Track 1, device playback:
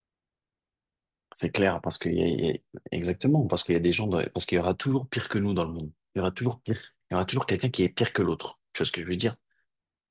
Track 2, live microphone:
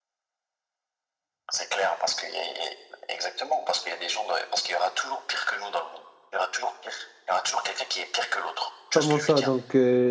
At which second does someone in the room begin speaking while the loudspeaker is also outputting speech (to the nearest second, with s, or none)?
9 s